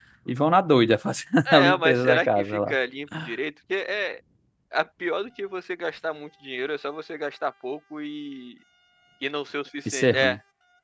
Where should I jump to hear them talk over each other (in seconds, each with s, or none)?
1.4 s